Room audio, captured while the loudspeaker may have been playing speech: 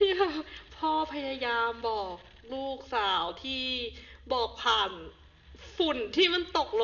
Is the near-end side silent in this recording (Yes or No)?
Yes